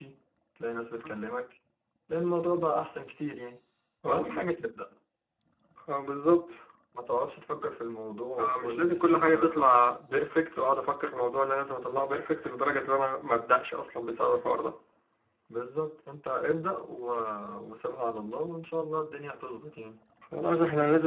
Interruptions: present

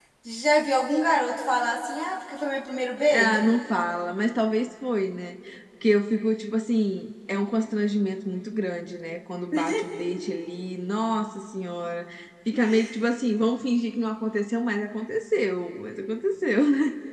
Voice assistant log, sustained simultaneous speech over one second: none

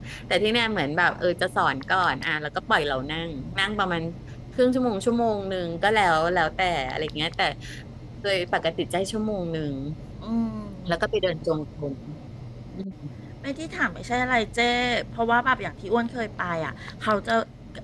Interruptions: none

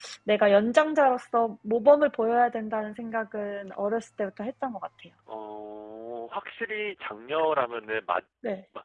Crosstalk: none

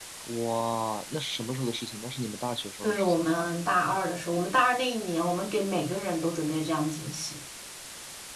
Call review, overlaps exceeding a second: none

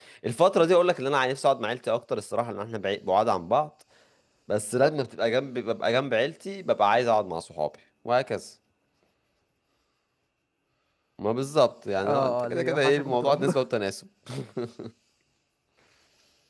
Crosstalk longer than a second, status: present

